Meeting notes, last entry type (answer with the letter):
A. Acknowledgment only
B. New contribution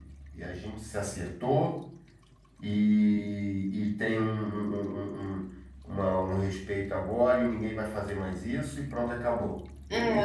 B